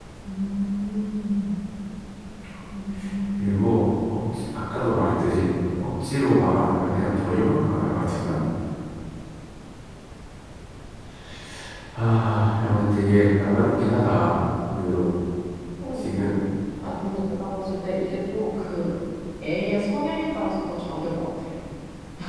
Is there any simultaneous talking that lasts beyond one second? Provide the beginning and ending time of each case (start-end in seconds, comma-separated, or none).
none